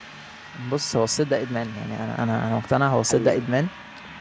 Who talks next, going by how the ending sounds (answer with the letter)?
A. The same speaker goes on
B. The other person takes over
A